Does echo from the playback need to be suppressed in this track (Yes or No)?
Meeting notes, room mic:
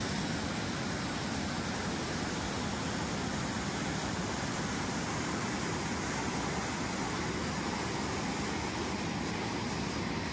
No